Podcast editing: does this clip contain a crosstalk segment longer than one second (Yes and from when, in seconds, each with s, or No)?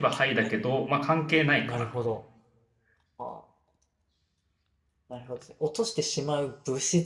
No